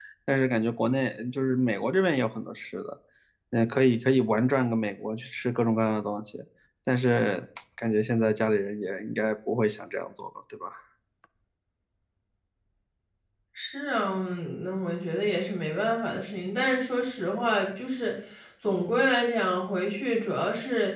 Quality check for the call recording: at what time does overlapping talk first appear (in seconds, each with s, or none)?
none